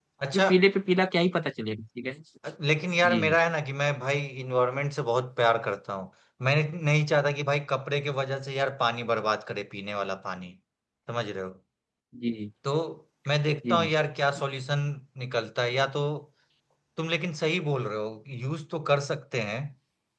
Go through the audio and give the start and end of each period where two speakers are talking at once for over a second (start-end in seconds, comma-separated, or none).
none